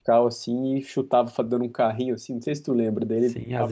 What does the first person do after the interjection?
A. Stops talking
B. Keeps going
A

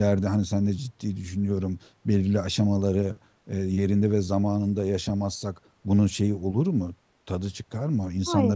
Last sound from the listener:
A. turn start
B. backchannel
A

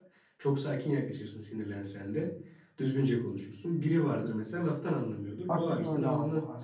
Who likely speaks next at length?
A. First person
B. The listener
B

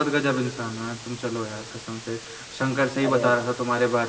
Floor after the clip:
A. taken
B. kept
B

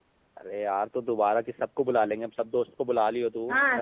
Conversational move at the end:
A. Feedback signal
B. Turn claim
B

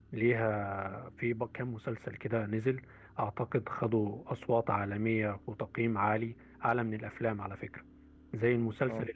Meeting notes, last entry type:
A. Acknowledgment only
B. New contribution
A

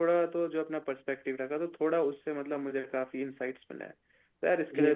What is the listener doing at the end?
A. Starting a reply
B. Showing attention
A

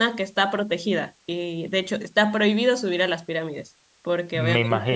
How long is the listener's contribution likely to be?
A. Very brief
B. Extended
A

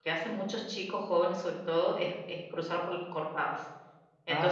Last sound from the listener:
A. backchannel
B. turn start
A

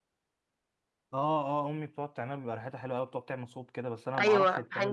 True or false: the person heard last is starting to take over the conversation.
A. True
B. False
A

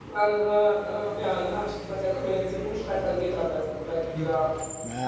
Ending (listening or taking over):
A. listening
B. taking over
B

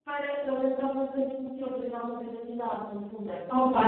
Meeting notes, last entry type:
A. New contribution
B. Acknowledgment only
A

